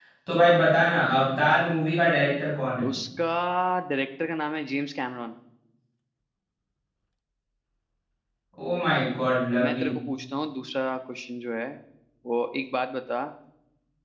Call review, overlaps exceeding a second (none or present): none